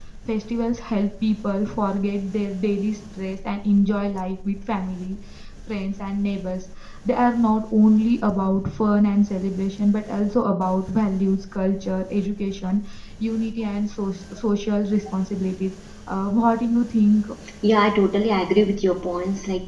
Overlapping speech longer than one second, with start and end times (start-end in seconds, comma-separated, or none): none